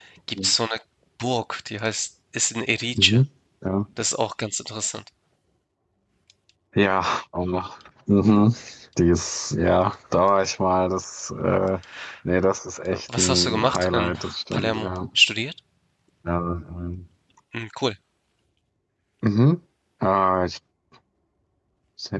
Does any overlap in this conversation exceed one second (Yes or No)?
Yes